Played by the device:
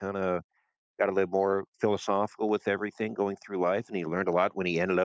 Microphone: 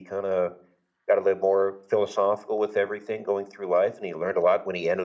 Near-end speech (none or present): none